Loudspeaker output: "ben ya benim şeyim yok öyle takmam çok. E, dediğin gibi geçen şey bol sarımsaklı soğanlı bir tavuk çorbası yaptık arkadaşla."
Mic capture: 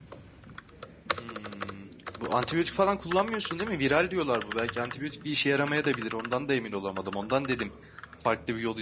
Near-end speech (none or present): present